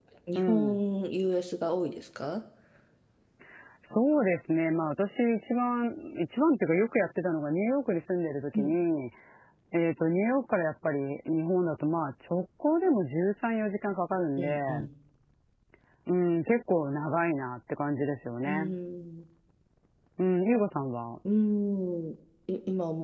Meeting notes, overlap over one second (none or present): none